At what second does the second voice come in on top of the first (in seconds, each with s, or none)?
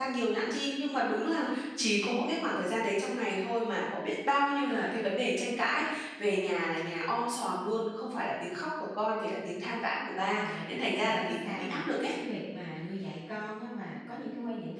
10.3 s